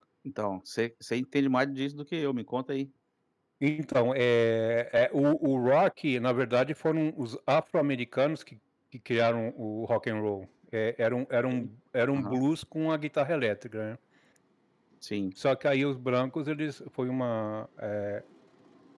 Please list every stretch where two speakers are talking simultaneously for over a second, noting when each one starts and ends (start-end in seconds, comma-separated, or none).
none